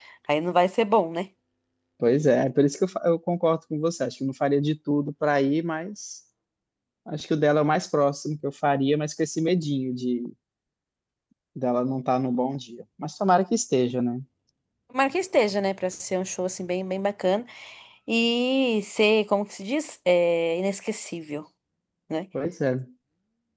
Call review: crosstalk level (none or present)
none